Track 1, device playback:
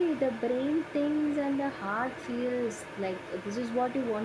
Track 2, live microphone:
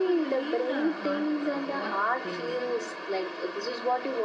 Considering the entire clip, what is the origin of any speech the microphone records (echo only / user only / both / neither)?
both